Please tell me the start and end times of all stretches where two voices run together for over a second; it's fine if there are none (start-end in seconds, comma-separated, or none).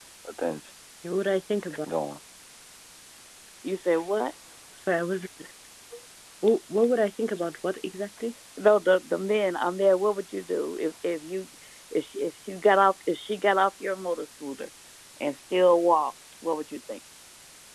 none